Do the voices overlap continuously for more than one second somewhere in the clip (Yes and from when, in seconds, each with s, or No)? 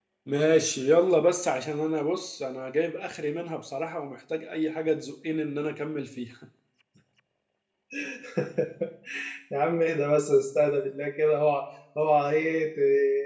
No